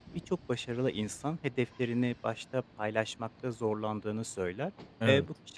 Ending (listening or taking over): listening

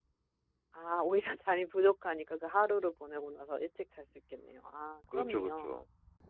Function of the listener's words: taking over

